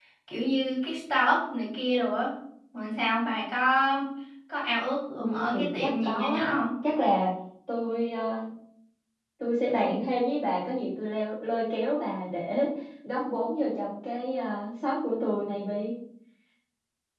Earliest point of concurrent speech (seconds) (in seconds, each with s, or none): 5.2 s